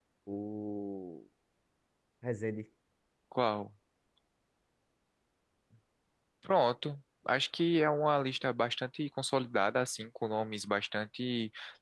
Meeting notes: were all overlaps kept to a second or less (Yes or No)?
Yes